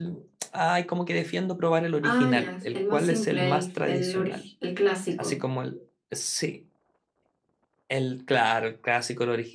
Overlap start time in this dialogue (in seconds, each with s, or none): 2.0 s